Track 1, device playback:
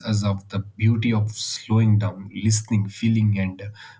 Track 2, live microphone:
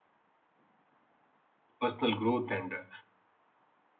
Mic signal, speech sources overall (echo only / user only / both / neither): user only